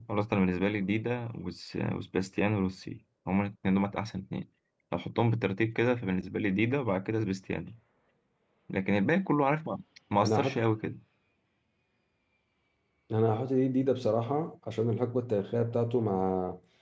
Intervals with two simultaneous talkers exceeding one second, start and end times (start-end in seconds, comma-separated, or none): none